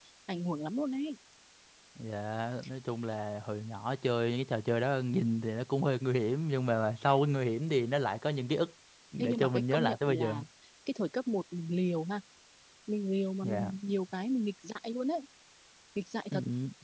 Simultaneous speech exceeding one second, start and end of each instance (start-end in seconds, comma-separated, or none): 9.2-10.4